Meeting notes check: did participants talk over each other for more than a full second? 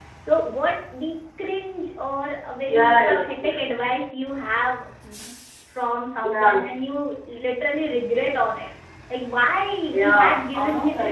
Yes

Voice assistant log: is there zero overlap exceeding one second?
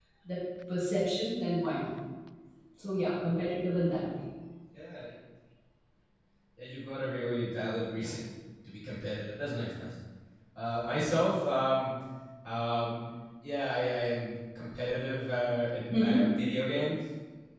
Yes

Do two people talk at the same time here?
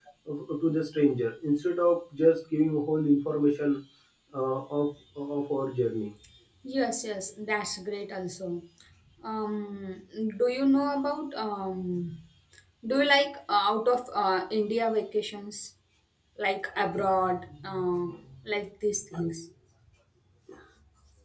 No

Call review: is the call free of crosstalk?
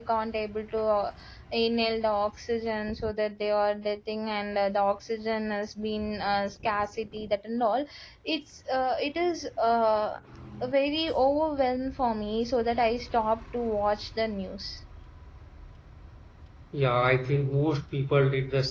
Yes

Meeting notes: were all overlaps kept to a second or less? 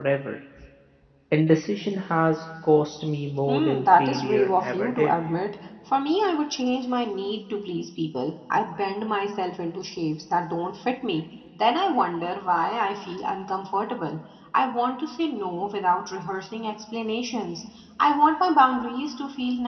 No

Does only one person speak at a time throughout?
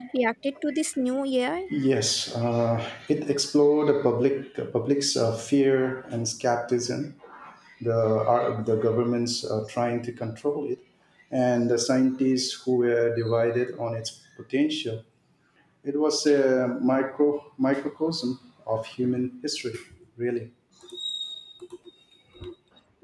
Yes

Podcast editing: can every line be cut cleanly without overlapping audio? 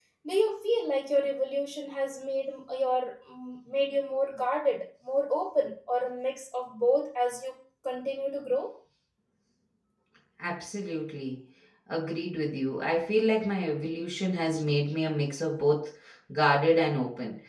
Yes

